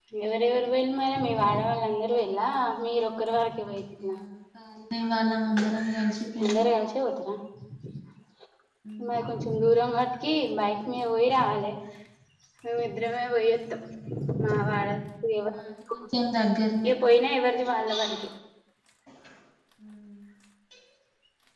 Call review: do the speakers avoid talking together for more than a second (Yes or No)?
Yes